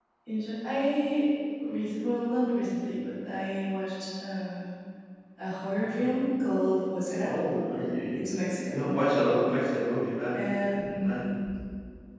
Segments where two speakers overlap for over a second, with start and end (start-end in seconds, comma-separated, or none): none